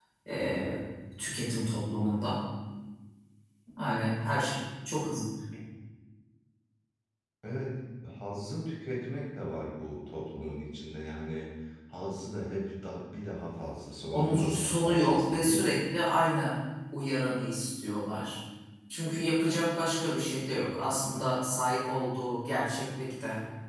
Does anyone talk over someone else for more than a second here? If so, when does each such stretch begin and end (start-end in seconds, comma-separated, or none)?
14.1-15.6